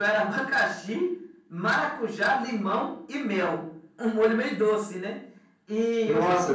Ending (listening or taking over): listening